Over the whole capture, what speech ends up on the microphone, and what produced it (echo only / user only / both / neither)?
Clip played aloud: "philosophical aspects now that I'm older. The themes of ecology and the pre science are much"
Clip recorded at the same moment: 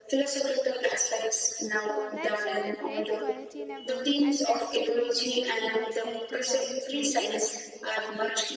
both